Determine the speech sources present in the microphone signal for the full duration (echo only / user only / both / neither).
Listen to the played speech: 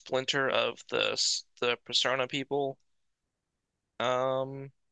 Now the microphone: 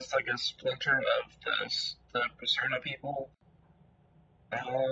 echo only